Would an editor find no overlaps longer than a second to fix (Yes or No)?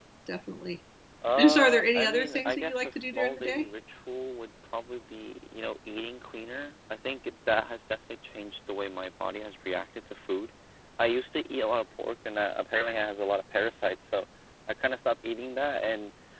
No